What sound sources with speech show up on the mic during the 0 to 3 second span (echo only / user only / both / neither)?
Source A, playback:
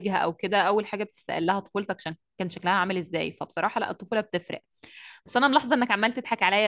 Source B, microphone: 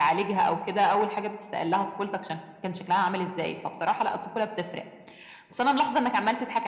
echo only